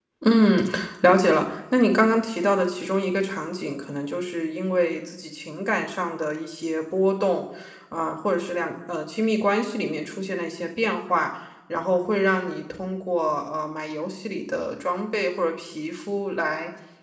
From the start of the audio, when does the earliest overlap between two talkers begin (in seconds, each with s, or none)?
none